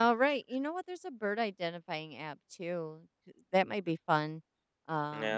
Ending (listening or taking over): taking over